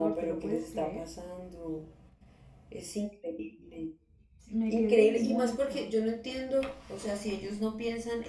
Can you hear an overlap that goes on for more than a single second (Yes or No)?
Yes